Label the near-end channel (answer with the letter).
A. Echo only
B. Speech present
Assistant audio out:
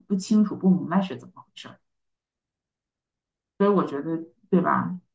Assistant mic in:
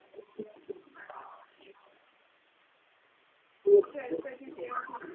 B